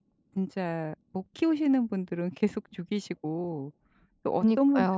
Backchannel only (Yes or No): Yes